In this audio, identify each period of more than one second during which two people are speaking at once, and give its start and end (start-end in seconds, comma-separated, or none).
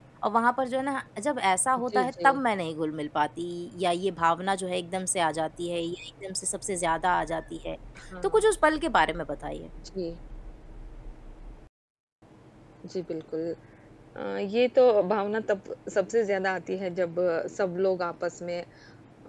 none